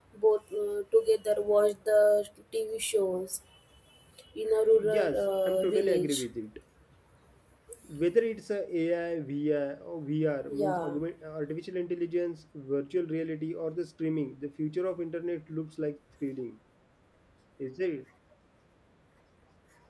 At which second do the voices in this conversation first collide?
5.0 s

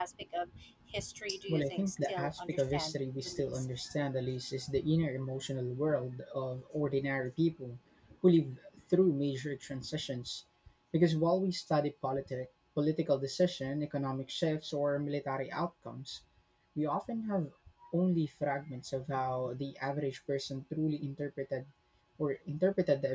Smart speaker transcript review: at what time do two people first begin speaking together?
1.5 s

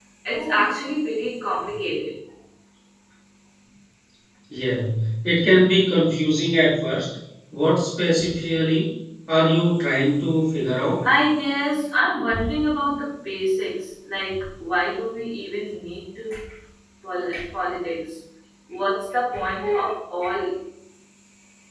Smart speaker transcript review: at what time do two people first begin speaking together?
none

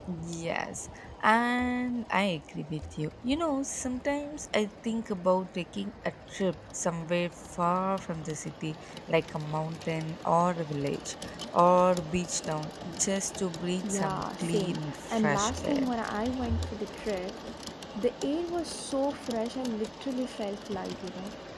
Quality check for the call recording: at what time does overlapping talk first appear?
13.8 s

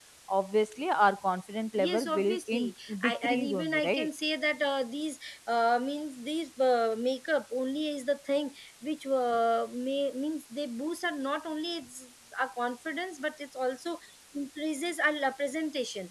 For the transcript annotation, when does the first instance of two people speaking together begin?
1.8 s

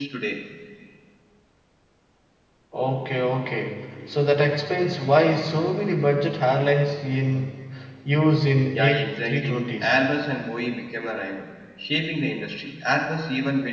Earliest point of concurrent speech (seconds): 8.7 s

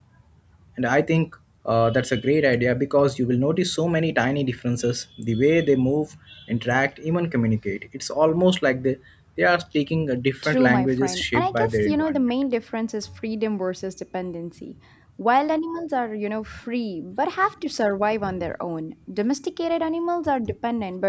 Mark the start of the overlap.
10.4 s

